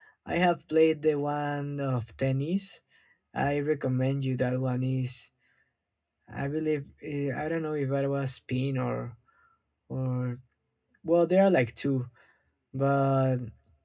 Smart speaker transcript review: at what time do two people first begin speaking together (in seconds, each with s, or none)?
none